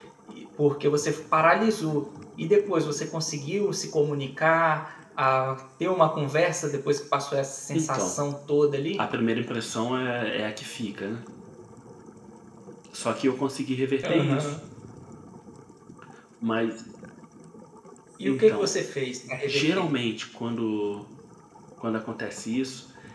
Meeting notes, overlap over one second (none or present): none